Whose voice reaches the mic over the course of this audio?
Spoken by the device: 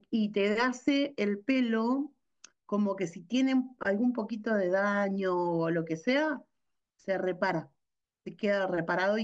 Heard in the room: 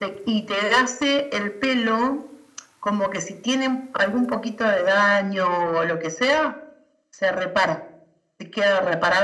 echo only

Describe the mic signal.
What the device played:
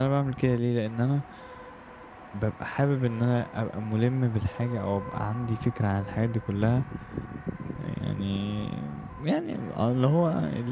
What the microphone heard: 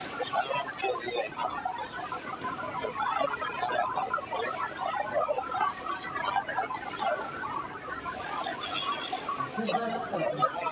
both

